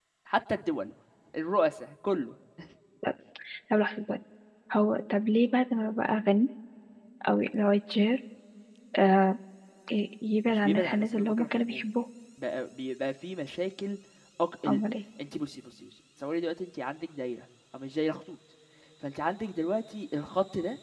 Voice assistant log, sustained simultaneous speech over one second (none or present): present